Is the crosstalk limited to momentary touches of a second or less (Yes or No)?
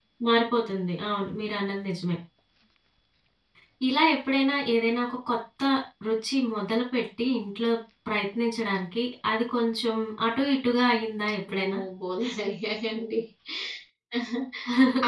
Yes